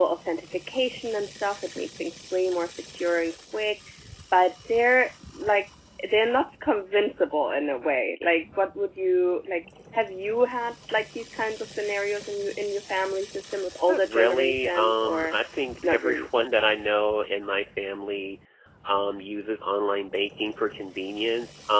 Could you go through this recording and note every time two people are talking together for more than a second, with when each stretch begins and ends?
13.9-15.4

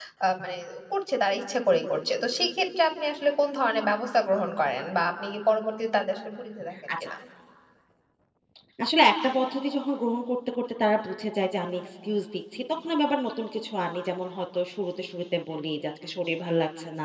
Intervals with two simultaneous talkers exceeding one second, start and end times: none

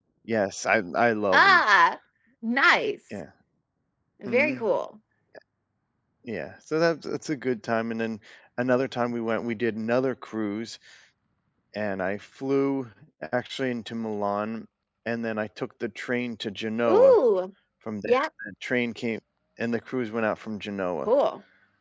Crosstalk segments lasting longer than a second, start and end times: none

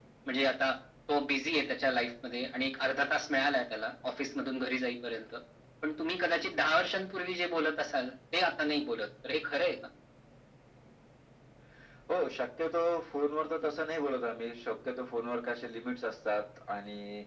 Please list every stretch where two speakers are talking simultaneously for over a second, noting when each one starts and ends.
none

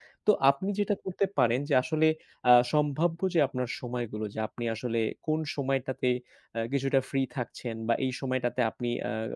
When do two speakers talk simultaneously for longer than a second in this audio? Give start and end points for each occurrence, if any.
none

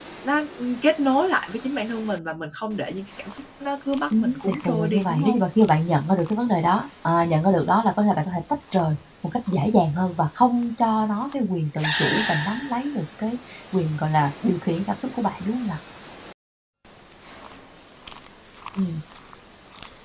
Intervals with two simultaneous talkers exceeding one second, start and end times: 4.1-5.4

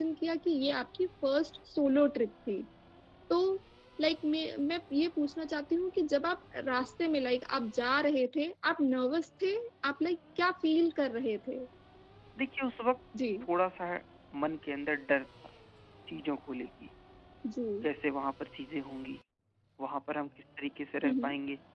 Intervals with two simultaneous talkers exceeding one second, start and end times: none

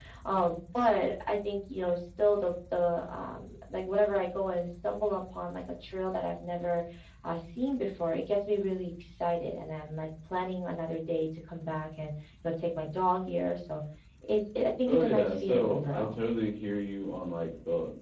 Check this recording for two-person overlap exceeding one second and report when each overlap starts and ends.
14.9-16.1

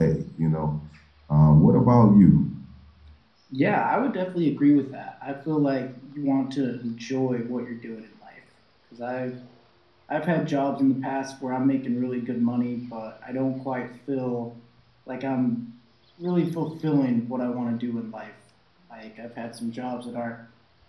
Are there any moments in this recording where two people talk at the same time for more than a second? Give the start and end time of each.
none

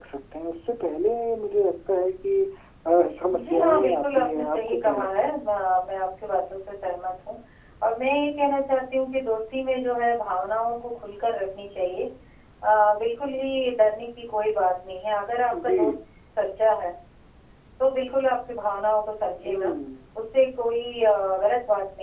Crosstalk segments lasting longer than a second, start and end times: 3.4-5.3

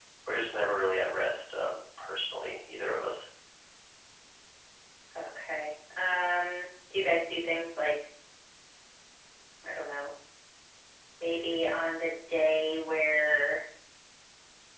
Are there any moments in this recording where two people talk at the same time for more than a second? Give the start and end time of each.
none

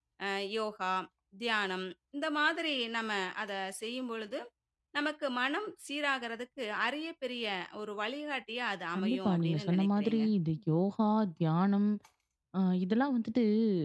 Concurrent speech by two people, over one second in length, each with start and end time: 9.0-10.2

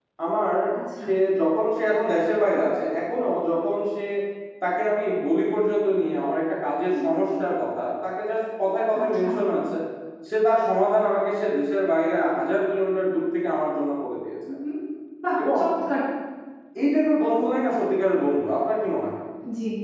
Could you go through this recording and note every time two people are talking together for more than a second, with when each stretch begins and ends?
none

